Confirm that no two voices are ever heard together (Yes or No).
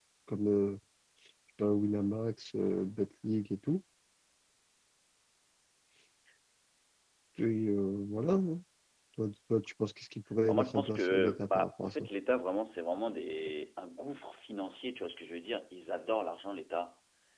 No